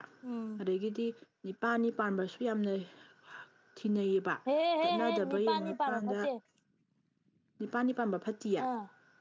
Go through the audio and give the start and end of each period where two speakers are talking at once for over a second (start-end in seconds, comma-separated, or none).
4.8-6.3